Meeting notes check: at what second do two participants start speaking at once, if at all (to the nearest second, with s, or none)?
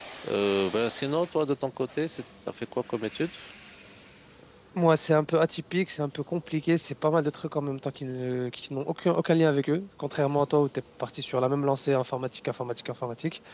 none